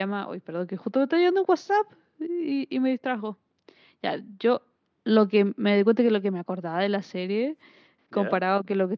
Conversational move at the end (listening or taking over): listening